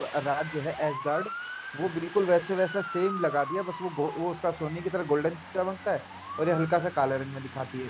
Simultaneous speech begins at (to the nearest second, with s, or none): none